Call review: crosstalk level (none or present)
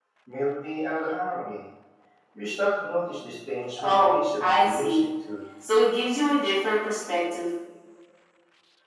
present